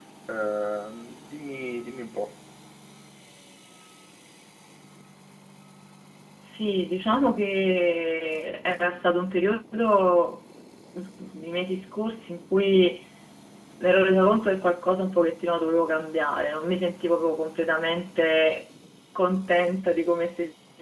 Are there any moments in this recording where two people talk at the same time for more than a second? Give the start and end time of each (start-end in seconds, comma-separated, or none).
none